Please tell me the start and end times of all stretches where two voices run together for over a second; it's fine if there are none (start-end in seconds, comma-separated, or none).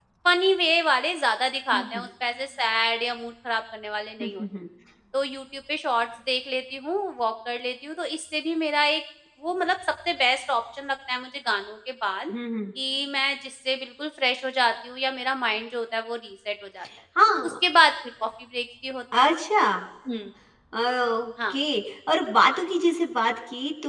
none